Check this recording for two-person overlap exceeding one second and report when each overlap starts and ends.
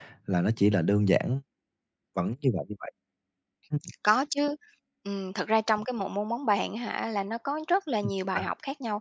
none

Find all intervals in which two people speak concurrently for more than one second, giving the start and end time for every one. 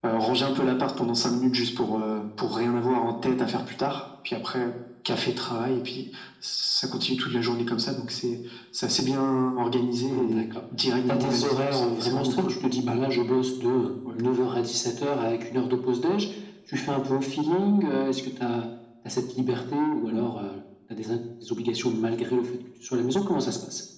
11.1-12.5

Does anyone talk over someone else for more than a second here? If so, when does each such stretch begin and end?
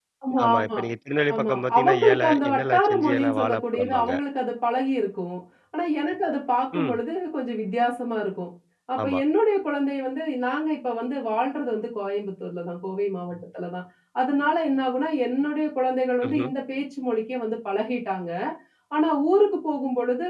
1.4-4.1

